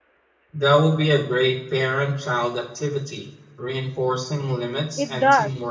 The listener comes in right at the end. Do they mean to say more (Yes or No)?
Yes